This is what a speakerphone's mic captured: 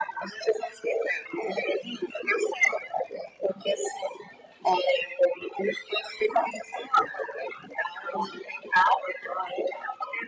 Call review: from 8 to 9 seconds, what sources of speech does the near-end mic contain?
echo only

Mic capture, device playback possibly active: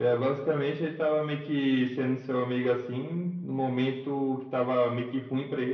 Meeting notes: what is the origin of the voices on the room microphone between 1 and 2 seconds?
echo only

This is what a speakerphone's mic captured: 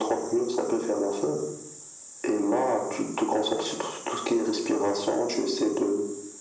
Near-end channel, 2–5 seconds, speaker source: echo only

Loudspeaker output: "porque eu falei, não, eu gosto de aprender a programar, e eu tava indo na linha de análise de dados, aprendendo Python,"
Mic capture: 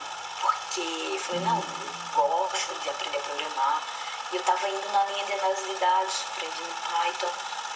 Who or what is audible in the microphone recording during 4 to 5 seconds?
echo only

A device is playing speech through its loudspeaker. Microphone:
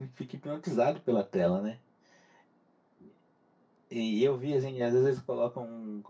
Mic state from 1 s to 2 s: user only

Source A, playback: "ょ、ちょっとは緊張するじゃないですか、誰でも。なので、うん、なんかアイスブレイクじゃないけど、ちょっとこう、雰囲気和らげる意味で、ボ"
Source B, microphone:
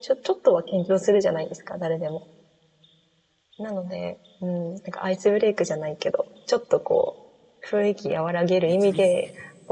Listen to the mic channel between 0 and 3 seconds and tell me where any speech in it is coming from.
echo only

